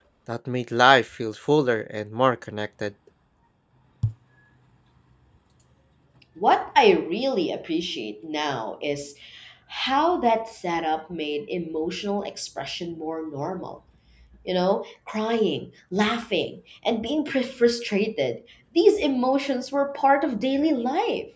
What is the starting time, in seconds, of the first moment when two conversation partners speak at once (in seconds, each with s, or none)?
none